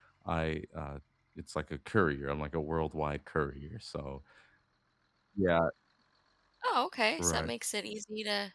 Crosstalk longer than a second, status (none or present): none